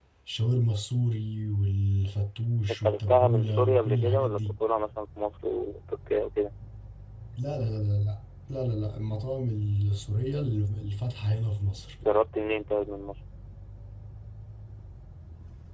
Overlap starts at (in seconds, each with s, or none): 2.8 s